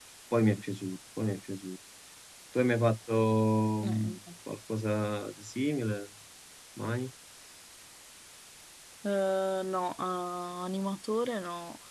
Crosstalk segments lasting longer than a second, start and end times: none

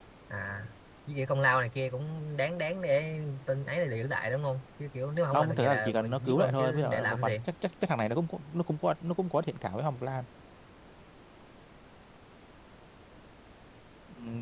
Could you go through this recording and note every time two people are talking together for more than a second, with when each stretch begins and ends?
5.3-7.3

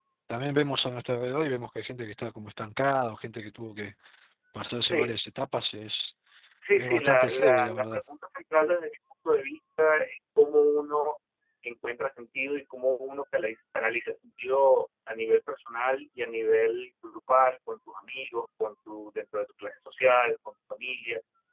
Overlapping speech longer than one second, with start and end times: 6.8-8.0

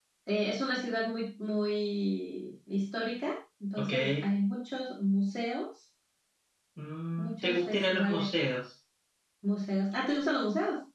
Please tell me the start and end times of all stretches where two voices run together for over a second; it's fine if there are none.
7.2-8.5

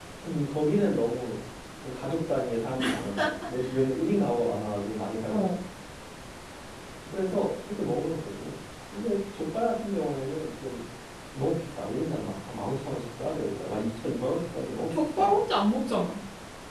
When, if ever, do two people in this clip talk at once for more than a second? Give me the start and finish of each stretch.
none

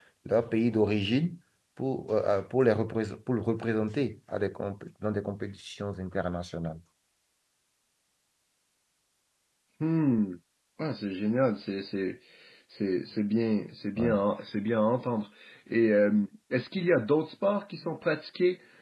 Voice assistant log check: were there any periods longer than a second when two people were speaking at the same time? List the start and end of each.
none

